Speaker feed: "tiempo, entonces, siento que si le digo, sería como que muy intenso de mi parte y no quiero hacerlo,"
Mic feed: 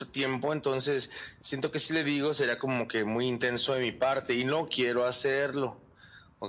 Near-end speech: none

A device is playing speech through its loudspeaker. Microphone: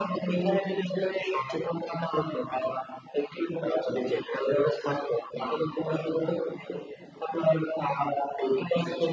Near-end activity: none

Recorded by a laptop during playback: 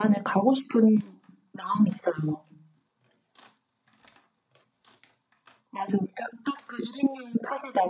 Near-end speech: none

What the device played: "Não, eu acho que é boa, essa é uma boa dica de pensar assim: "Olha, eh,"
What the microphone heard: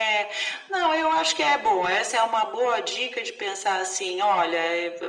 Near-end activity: none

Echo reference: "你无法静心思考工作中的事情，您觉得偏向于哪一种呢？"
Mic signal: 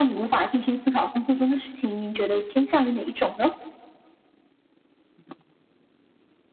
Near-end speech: none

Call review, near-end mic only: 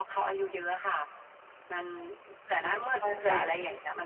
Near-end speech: present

